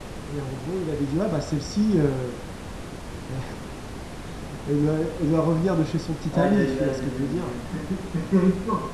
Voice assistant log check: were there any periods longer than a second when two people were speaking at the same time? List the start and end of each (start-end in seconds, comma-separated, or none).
6.3-7.5